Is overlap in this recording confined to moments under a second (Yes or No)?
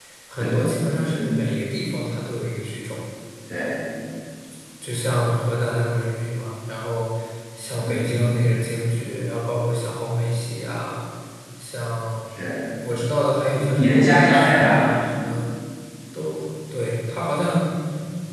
No